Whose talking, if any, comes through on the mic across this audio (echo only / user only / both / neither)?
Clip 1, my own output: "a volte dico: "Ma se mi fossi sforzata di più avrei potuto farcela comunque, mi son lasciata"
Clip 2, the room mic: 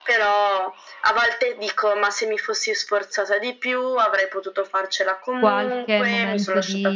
both